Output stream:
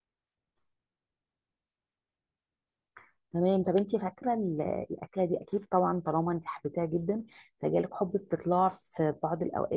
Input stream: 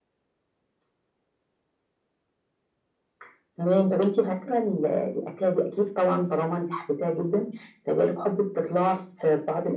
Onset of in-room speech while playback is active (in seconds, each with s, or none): none